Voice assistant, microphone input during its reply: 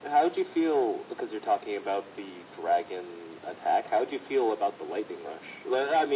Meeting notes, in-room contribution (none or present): none